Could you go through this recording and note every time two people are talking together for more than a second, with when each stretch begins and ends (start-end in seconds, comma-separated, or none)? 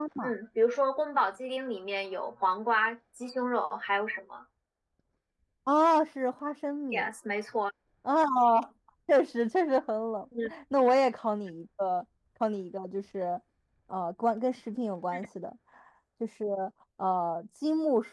none